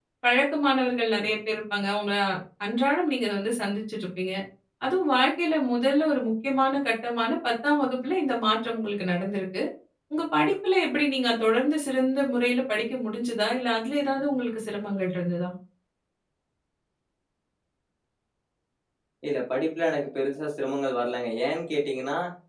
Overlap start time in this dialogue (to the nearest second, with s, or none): none